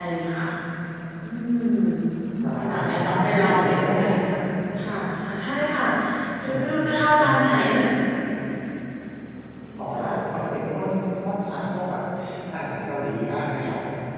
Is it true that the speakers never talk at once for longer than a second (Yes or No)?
No